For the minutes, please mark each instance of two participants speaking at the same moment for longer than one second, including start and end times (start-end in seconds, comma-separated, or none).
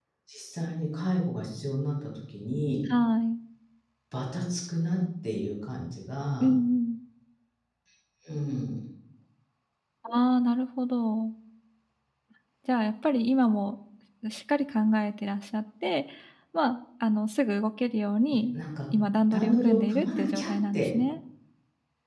19.3-20.9